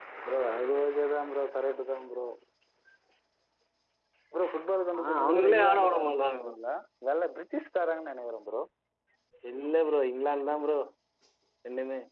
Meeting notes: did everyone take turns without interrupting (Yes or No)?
No